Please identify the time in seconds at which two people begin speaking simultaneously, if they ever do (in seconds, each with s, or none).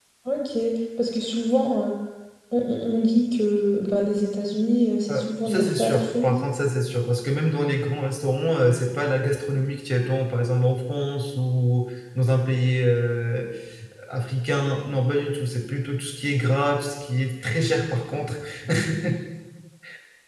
5.1 s